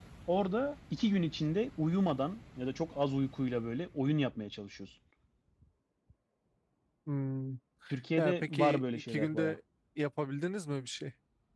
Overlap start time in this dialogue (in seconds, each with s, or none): 8.2 s